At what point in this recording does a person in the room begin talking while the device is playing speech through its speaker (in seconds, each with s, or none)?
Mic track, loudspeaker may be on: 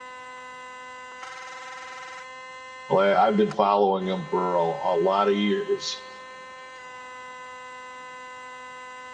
2.9 s